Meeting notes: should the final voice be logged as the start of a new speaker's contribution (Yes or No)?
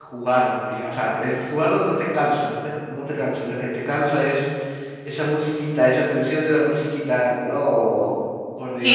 Yes